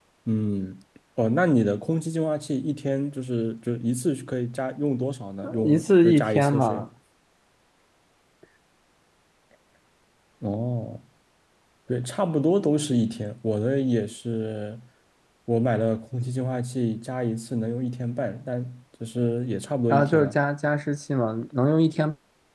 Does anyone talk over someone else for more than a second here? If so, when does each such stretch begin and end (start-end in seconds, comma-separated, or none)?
5.6-6.9